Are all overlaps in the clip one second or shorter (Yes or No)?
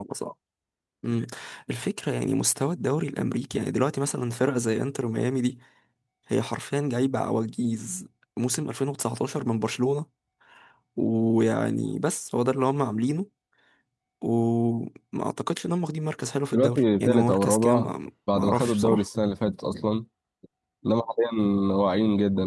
No